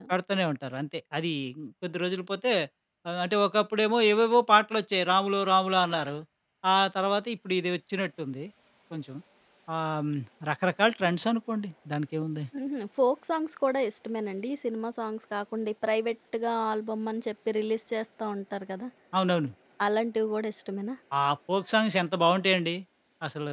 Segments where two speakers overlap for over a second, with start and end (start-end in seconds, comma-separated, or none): none